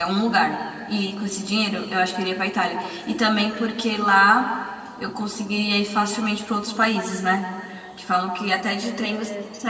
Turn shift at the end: No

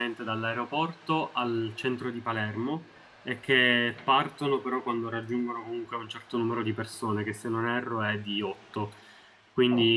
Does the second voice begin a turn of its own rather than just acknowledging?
No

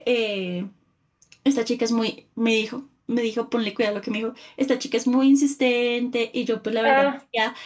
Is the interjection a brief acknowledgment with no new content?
Yes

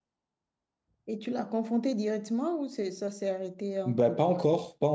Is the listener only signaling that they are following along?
No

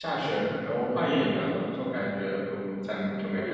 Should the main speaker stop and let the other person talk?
Yes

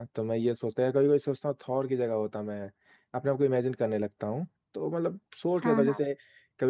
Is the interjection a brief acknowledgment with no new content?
Yes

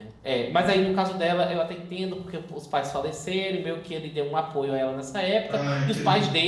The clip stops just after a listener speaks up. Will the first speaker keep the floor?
Yes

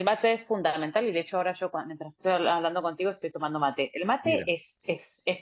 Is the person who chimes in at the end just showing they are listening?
Yes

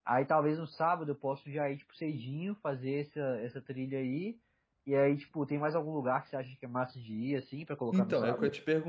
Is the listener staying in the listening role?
No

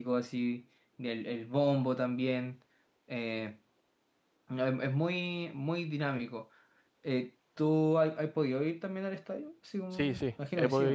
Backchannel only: No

